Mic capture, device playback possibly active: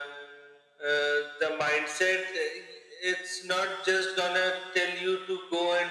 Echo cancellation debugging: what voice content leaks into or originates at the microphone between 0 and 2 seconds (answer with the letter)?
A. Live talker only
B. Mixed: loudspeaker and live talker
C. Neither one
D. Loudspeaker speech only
D